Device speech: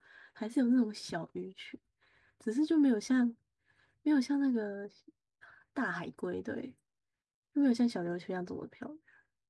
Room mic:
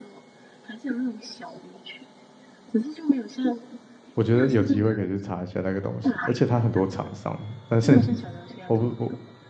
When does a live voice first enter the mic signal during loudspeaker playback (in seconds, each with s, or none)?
4.1 s